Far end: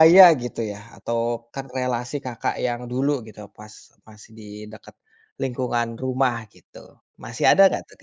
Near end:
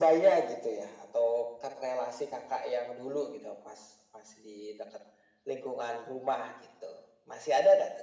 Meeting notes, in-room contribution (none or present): none